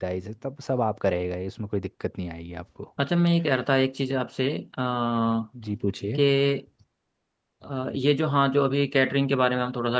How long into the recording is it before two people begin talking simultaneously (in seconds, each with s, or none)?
none